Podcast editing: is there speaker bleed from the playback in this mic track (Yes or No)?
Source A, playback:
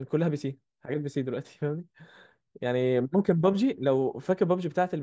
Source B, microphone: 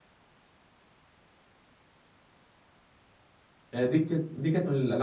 No